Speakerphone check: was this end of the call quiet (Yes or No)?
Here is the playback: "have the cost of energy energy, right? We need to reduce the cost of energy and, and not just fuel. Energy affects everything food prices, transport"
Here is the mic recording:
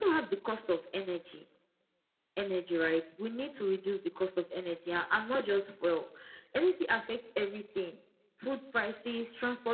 Yes